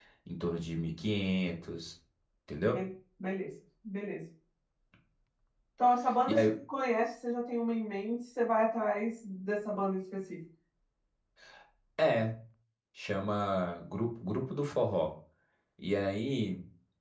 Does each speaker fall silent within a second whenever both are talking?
Yes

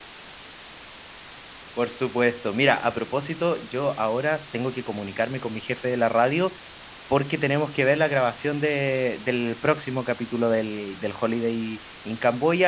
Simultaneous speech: No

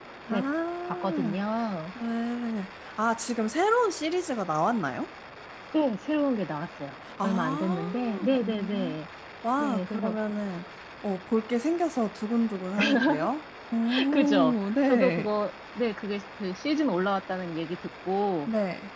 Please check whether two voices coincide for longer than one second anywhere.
Yes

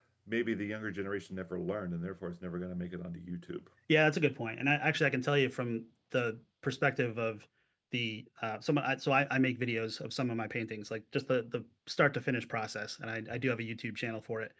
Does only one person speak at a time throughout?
Yes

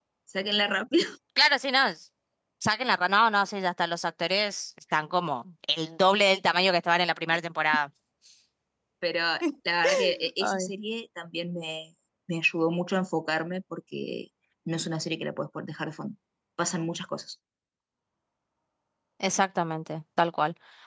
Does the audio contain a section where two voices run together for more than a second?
No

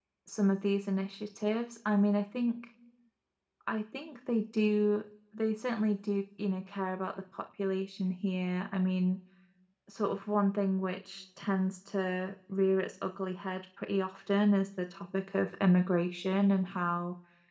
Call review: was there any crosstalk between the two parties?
No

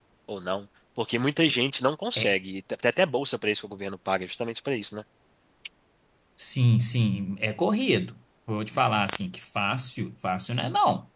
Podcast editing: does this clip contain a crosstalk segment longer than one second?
No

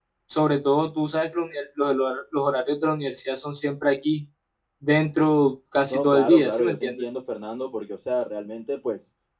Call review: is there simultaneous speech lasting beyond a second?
Yes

